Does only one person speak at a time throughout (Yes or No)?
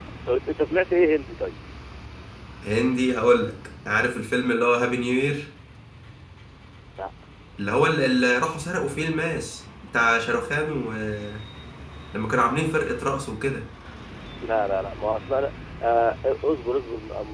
Yes